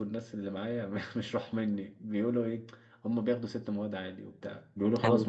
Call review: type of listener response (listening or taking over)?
listening